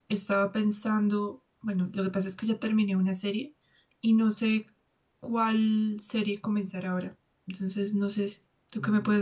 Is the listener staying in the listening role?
No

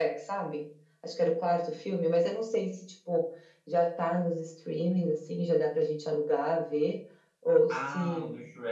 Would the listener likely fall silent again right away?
No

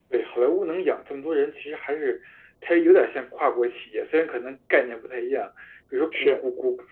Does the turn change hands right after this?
No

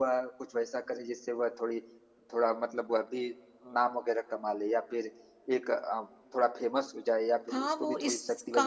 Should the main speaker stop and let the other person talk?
Yes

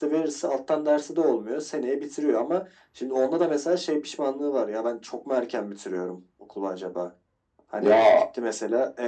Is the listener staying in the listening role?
Yes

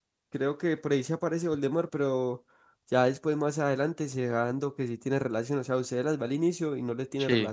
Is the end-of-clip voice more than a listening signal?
No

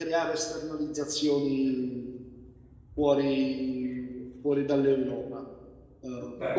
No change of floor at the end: Yes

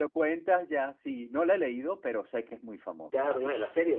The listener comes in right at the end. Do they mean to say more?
Yes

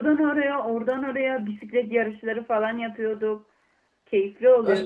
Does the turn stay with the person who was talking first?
No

